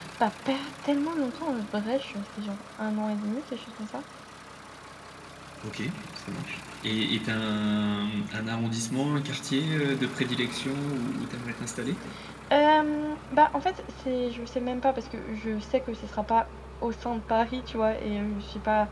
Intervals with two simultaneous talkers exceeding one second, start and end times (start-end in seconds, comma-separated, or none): none